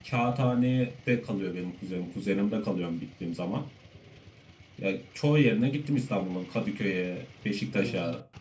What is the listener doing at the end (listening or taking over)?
taking over